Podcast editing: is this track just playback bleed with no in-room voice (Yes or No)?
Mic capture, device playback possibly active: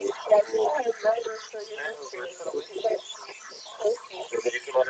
Yes